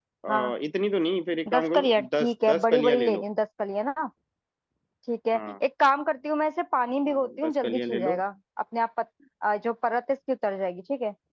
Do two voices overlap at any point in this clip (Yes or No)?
Yes